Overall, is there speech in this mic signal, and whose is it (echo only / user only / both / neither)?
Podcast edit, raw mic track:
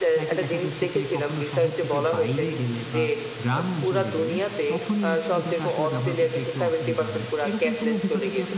both